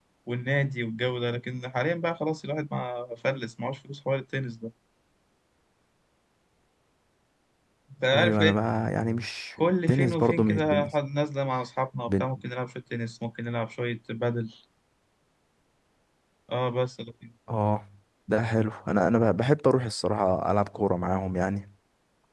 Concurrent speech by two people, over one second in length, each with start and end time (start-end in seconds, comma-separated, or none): 9.6-10.9